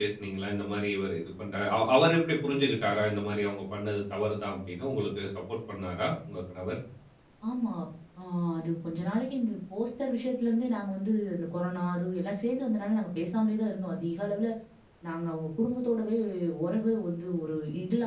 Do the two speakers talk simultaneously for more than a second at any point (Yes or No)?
No